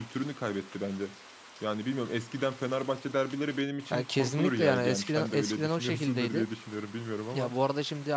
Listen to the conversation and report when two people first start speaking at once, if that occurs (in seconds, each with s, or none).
3.9 s